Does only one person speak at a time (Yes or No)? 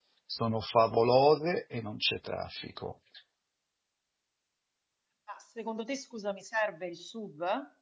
Yes